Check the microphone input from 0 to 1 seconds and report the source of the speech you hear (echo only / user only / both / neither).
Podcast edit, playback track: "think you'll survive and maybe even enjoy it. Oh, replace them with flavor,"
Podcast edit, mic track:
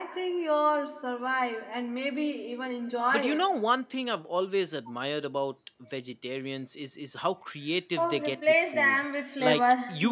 echo only